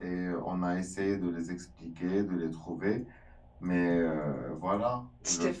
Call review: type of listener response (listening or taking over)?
listening